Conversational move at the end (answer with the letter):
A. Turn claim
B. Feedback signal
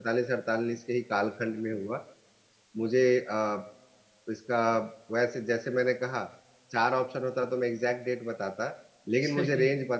B